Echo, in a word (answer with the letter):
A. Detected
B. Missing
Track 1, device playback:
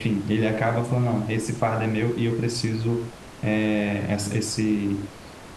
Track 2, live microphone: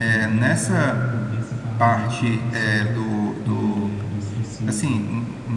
A